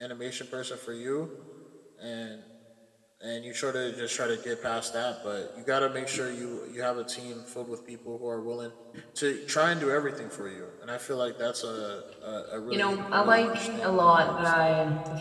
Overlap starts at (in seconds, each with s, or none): 12.7 s